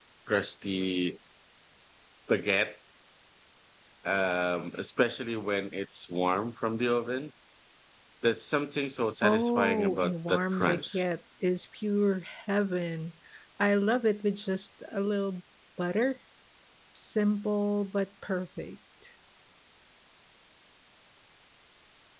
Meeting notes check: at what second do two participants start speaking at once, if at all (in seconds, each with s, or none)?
9.2 s